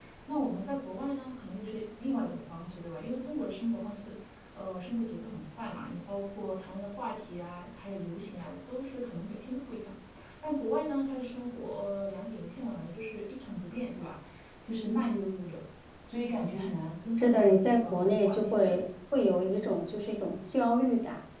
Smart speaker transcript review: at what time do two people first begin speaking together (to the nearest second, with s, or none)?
17 s